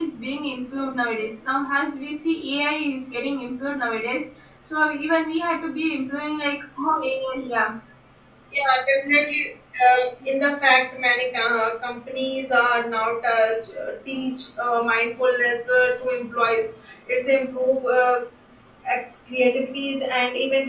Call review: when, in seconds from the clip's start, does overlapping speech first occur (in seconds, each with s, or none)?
none